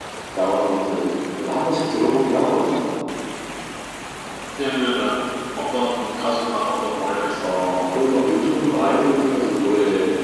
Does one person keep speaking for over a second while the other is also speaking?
No

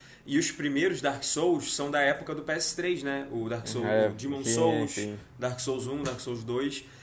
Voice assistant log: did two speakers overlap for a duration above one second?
Yes, from 3.6 s

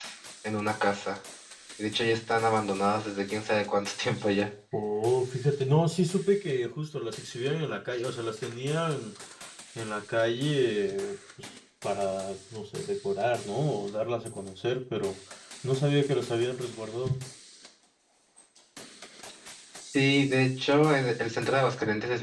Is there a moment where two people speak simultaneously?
No

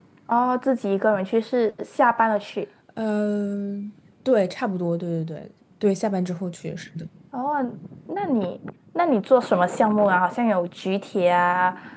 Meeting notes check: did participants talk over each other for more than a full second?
No

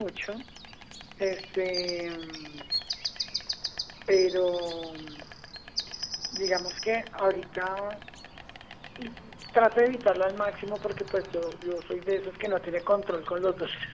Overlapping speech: No

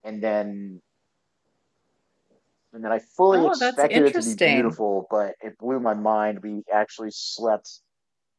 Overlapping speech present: Yes, from 3.3 s

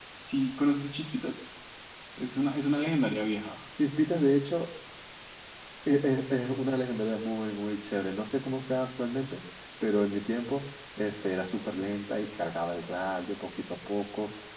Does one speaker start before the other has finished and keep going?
No

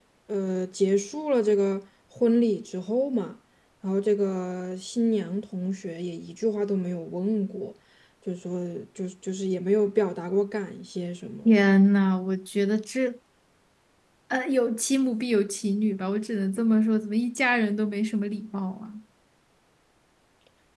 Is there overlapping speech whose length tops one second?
No

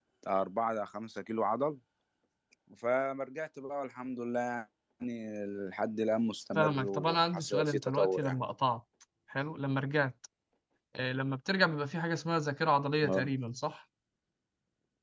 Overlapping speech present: Yes, from 6.5 s

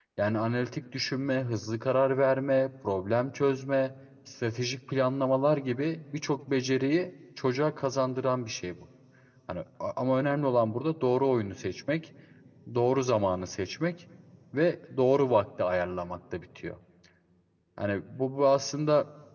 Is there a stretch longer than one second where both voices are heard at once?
No

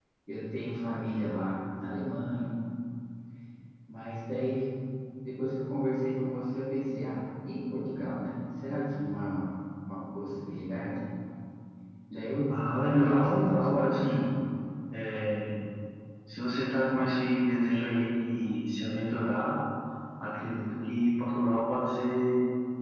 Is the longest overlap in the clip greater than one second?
Yes, from 12.6 s

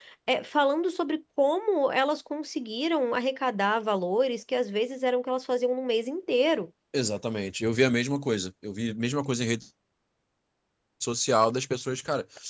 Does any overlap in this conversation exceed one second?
No

